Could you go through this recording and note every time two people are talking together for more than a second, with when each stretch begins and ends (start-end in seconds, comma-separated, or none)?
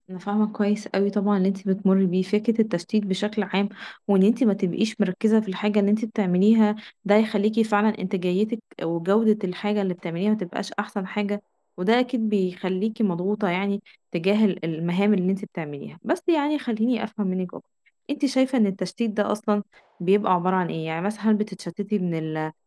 none